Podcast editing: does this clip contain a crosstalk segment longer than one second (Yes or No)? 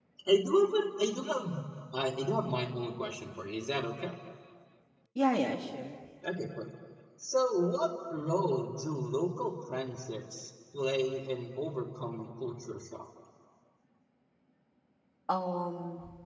No